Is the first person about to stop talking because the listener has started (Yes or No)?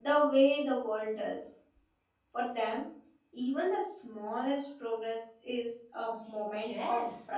Yes